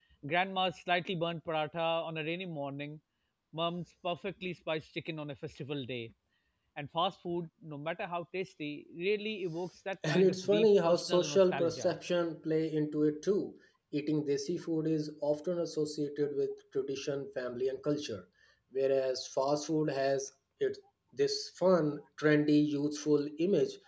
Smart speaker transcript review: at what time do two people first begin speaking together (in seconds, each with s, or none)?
10.0 s